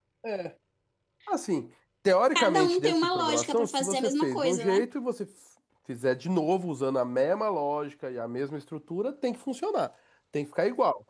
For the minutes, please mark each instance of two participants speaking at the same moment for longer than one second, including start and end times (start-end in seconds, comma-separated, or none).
2.4-4.8